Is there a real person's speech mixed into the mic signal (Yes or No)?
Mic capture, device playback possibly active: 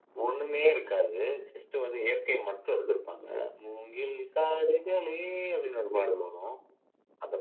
No